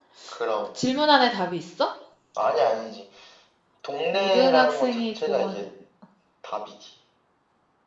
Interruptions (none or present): present